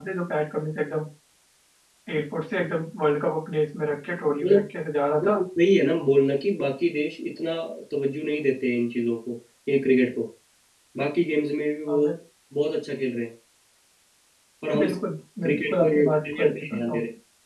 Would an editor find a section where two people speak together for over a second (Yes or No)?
Yes